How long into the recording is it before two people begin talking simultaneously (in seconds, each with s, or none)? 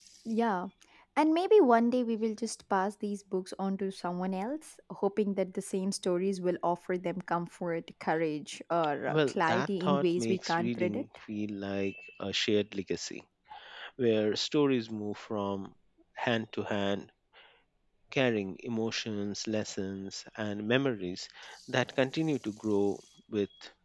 9.1 s